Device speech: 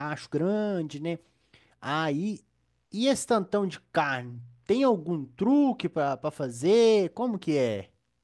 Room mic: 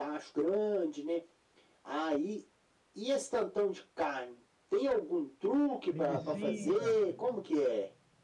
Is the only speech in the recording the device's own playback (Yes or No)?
No